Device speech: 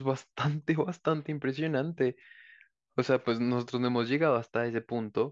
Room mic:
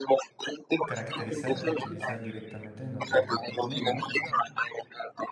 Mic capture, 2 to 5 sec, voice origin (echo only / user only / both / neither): both